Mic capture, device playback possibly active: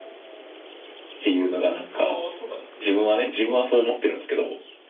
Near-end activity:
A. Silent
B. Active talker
B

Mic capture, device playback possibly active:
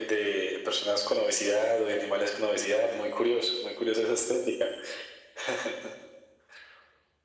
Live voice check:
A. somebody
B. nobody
B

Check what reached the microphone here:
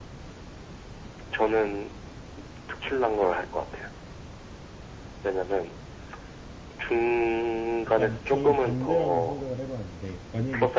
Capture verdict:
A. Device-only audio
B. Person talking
B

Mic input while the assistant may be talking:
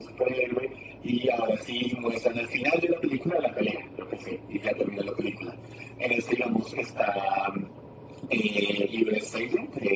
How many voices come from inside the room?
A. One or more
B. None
B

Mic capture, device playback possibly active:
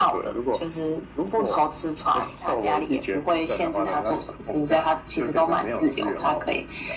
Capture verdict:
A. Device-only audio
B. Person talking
A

